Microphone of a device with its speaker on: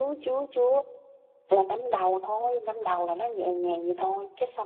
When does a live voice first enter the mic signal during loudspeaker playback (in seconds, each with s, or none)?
none